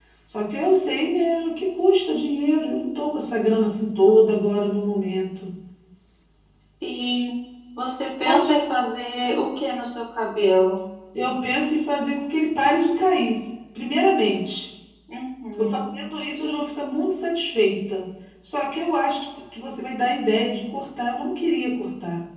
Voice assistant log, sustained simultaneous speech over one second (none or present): none